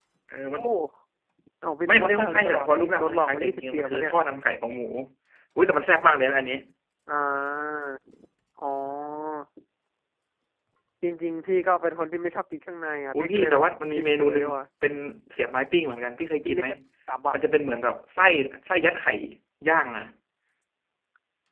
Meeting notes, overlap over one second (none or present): present